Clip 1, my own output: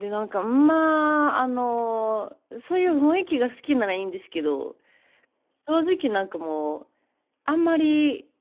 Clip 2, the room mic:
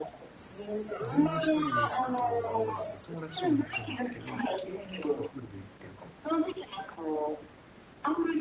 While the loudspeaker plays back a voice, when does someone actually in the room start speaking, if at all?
1 s

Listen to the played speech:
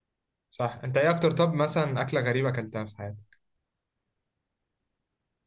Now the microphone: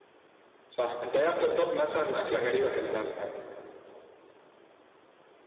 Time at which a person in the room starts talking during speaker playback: none

